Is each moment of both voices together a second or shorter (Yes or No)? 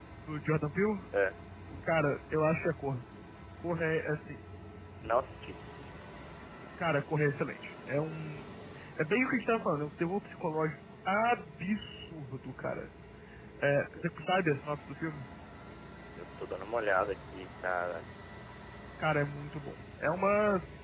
Yes